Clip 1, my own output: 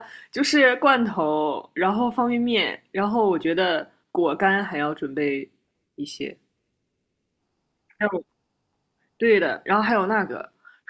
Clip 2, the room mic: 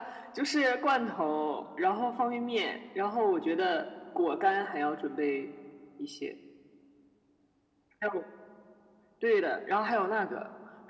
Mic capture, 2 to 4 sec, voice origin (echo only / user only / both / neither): echo only